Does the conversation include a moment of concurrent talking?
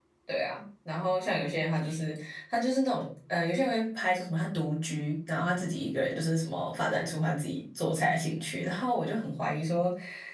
No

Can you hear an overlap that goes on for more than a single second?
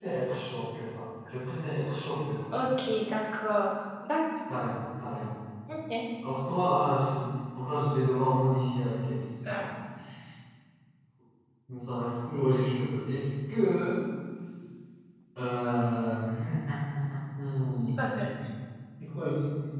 No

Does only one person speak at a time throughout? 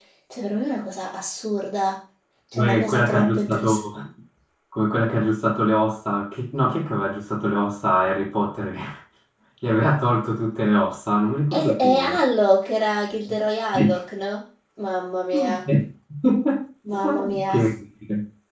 No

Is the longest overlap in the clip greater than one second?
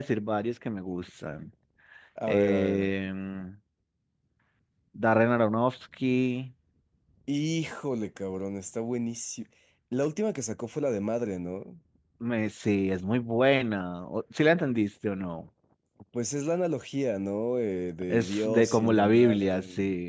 Yes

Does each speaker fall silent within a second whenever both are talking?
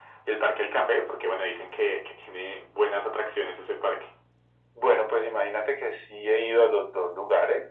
Yes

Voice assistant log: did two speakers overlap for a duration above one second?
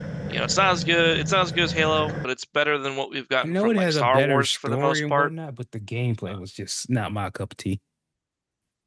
Yes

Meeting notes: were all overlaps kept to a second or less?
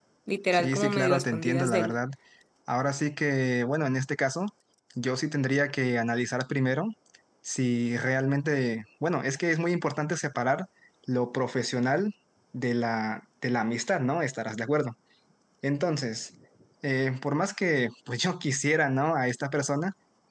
No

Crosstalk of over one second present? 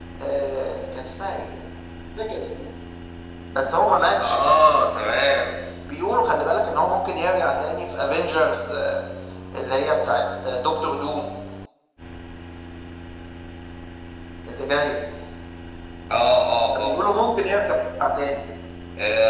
No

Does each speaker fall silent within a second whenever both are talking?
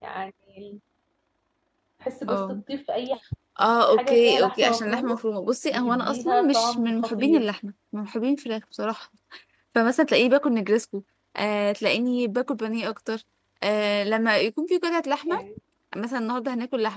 No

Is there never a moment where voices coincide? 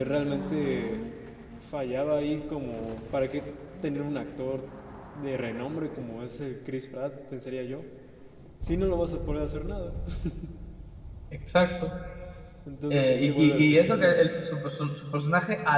No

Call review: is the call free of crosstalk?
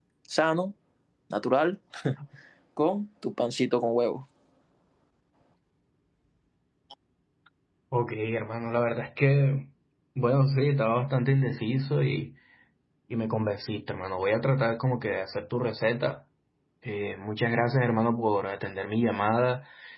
Yes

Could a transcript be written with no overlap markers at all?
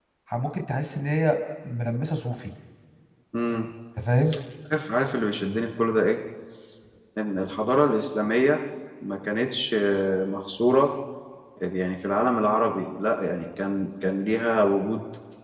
Yes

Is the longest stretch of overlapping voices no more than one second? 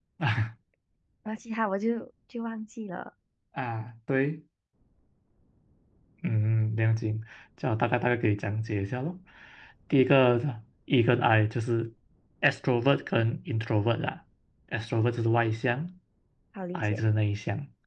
Yes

